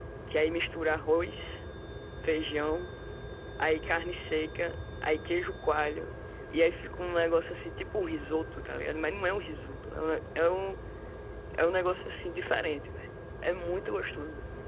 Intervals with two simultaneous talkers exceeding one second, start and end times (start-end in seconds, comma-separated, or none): none